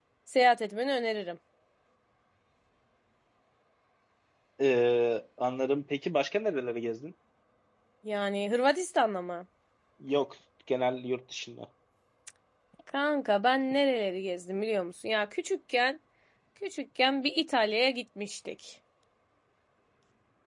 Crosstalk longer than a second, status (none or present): none